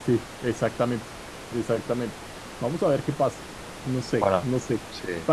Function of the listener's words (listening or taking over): listening